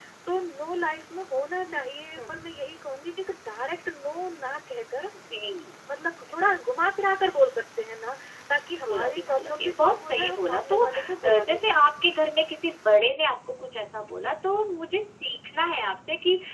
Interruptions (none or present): present